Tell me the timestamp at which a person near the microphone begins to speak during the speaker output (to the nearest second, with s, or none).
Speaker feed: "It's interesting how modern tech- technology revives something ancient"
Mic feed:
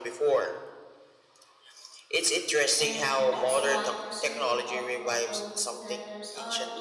3 s